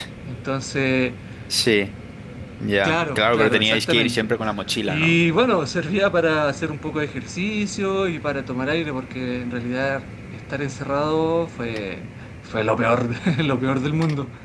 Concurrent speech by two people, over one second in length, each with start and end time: 2.8-4.3

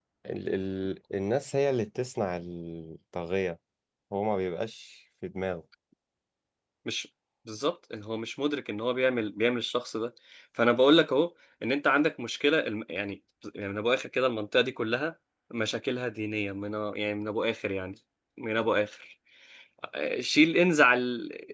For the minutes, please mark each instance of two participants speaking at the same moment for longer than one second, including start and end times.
none

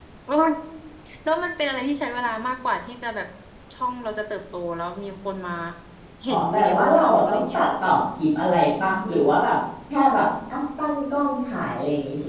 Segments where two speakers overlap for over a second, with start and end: 6.3-7.6

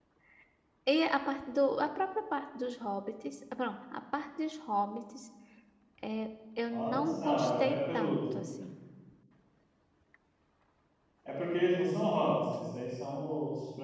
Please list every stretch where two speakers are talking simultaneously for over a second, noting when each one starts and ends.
6.7-8.2

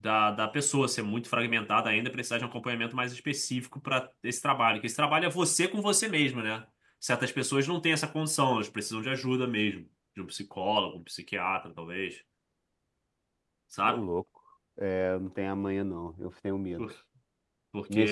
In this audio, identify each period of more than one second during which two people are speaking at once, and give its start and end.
none

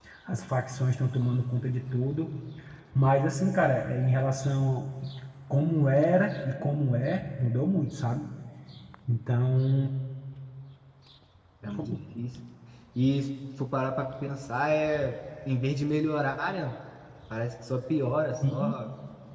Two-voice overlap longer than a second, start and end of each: none

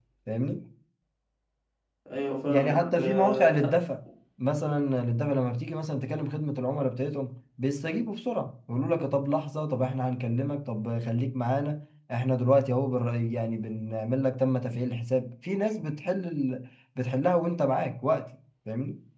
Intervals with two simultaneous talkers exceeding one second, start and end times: 2.5-3.8

